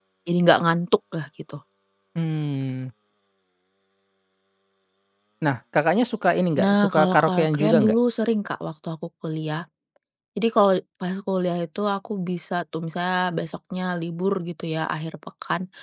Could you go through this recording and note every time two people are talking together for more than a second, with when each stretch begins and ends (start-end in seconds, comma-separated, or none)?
6.6-7.9